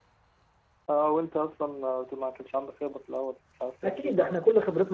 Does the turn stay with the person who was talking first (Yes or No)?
No